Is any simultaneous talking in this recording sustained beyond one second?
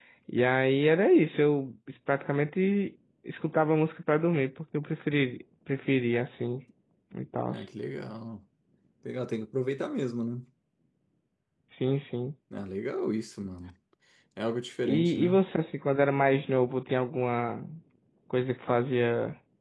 No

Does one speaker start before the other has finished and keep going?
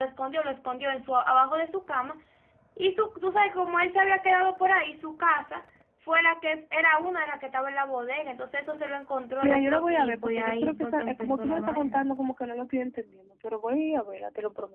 Yes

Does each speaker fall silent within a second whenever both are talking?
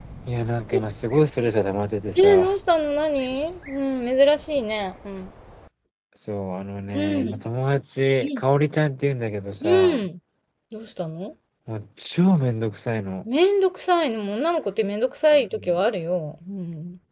Yes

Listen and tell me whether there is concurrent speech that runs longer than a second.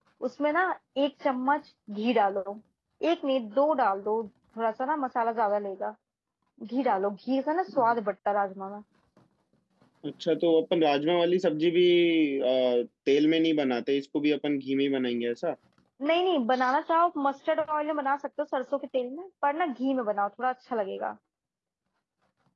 No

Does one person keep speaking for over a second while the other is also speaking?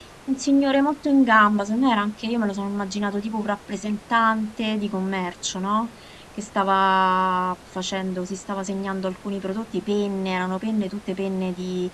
No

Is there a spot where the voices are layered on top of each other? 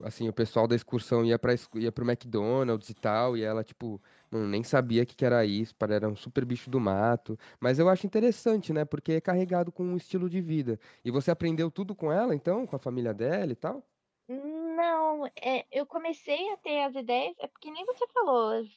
No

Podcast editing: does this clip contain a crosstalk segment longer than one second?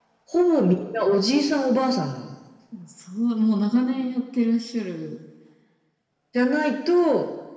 No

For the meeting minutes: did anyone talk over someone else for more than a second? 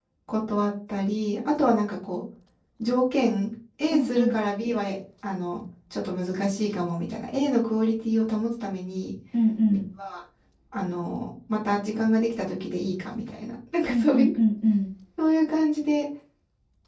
No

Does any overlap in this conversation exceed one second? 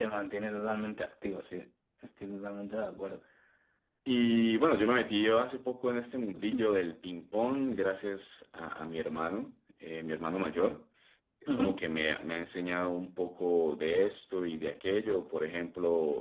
No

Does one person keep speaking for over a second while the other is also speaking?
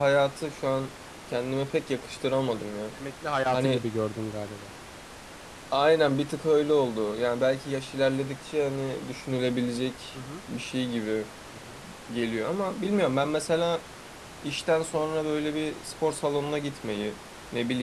No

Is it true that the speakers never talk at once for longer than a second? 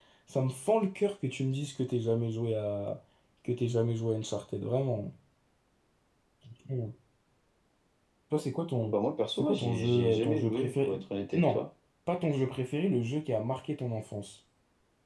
No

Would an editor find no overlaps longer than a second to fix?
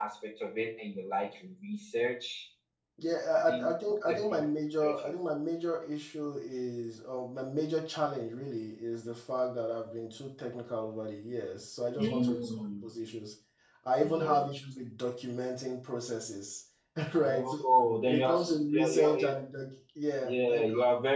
No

